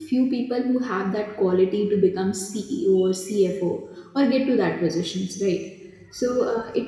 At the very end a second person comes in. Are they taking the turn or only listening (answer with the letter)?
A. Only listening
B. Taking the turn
A